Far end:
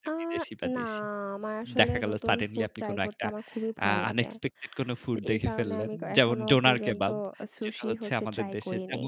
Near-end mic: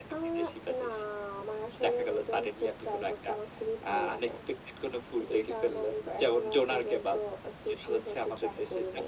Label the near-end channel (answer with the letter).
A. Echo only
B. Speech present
A